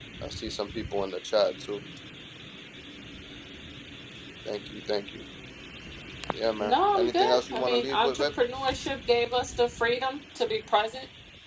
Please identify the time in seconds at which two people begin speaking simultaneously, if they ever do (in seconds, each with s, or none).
6.6 s